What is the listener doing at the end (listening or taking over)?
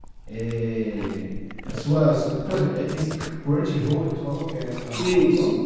taking over